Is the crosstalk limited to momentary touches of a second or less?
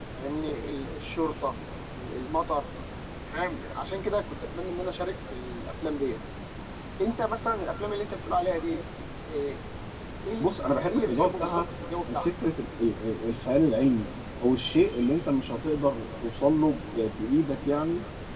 No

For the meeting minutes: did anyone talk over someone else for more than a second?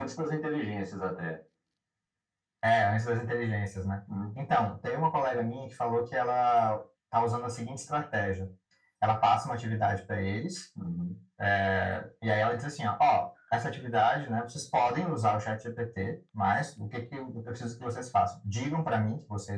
No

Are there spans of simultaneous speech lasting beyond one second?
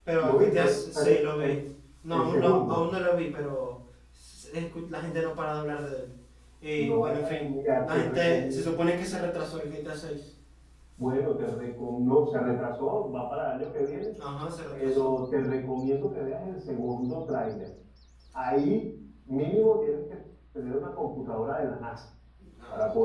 Yes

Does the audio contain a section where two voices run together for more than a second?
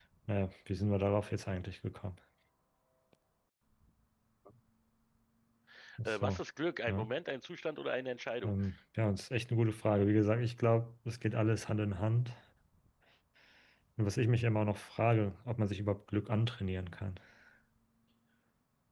No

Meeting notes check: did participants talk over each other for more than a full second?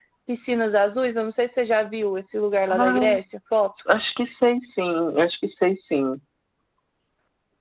No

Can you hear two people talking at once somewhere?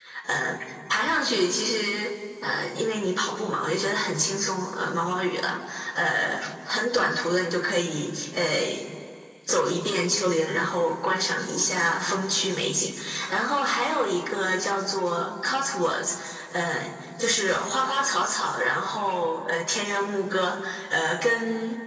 No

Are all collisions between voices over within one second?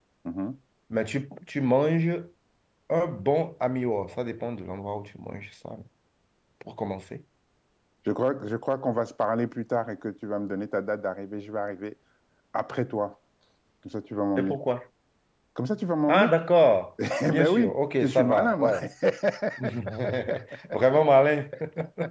No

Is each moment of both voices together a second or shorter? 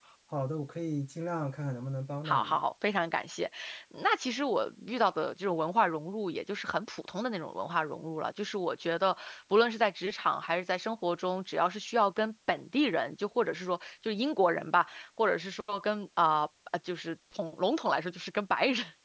Yes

